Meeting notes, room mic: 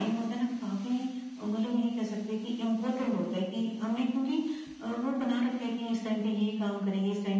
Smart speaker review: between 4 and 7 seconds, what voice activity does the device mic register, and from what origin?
echo only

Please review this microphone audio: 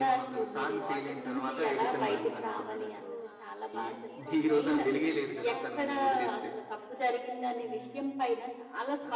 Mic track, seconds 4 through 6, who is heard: both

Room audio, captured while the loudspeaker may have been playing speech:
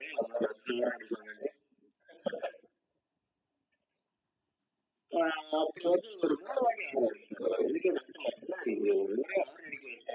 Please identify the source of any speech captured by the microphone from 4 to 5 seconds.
neither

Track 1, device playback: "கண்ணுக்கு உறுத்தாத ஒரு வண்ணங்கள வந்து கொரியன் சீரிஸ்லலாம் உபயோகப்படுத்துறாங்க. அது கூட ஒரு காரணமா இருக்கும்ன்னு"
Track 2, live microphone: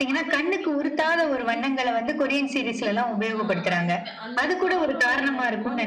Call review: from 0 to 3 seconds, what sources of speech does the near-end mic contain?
both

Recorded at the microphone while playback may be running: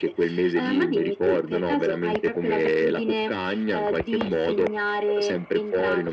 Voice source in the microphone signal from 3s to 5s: echo only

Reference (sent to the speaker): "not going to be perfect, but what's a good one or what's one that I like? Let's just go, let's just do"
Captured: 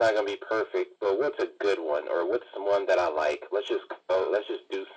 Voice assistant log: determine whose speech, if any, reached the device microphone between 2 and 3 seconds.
echo only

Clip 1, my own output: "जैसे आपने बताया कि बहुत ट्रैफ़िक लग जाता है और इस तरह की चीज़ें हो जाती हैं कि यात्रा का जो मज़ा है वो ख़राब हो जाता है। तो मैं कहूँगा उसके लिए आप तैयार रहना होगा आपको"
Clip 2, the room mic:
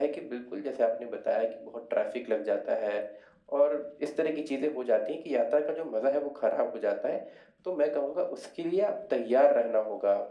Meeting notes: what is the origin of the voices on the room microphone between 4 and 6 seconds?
echo only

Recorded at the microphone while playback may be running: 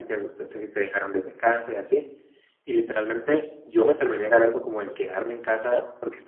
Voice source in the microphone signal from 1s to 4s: echo only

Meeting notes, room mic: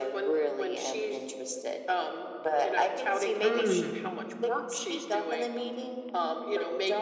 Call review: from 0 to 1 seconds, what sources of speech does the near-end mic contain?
echo only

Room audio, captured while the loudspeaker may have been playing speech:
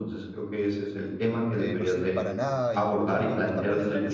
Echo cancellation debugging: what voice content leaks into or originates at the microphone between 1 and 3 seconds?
both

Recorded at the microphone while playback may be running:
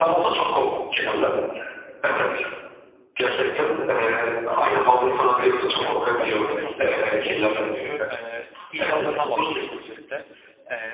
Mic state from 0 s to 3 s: echo only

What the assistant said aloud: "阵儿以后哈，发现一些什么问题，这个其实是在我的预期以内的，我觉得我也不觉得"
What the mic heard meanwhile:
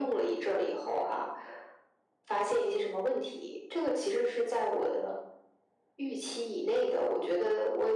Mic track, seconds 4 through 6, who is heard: echo only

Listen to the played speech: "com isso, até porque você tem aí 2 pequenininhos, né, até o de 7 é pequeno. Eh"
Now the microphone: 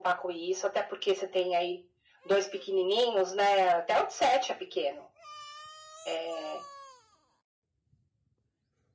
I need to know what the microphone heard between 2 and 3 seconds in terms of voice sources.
echo only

